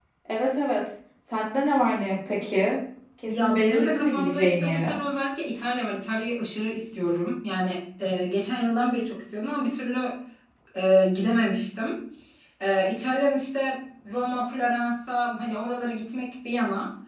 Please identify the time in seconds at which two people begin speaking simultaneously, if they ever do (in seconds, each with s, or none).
3.3 s